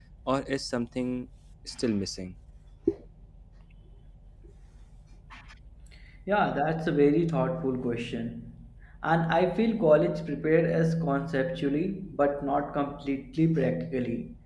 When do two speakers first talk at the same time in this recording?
none

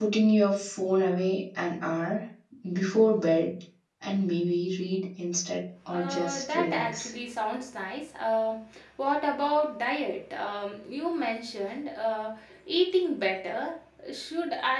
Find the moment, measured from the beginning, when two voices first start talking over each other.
5.9 s

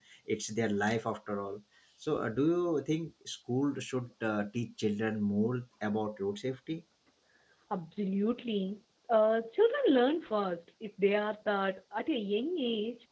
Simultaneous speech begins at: none

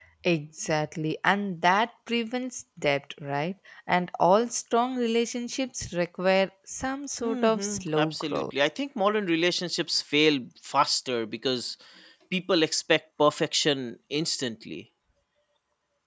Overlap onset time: 7.2 s

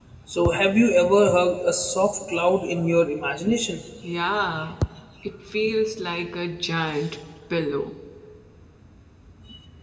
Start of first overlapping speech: none

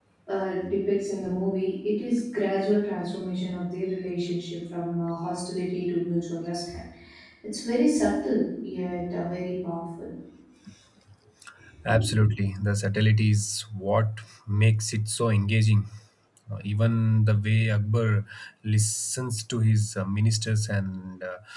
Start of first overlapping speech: none

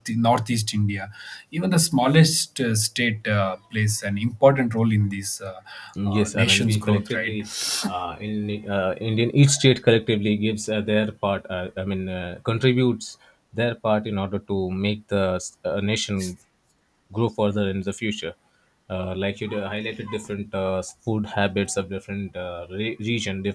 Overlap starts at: 6.1 s

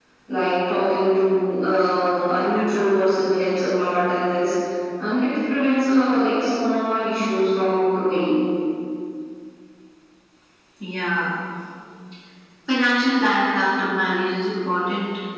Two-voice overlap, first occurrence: none

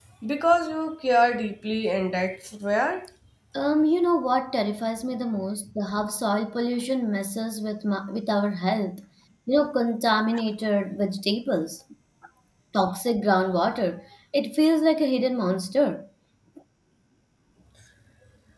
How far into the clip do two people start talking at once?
none

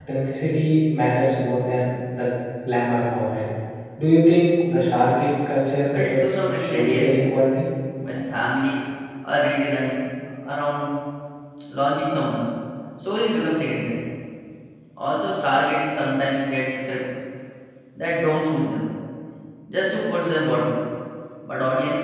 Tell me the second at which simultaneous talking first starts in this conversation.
5.9 s

